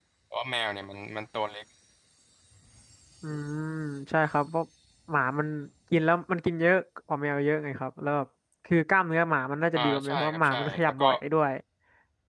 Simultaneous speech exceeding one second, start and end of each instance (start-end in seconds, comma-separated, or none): 9.7-11.1